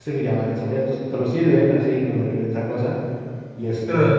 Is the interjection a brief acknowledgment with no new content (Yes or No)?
Yes